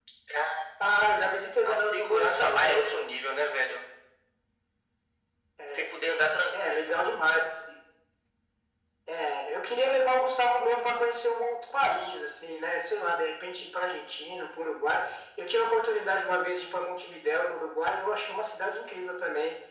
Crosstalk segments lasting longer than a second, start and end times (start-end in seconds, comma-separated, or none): 1.6-3.0